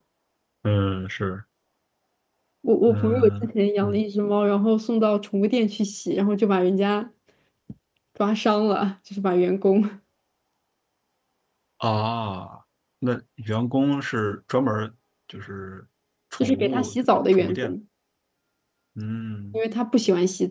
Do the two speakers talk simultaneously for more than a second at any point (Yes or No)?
Yes